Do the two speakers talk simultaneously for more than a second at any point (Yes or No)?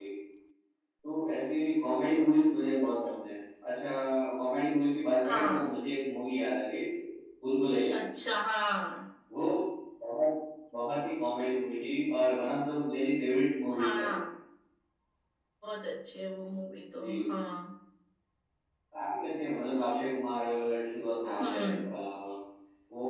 No